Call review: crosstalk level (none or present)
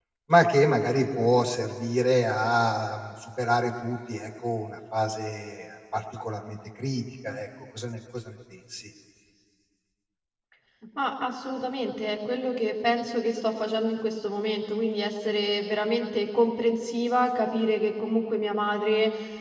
none